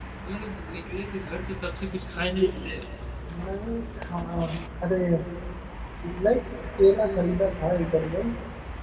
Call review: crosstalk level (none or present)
none